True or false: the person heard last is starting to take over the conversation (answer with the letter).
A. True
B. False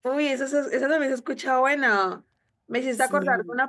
B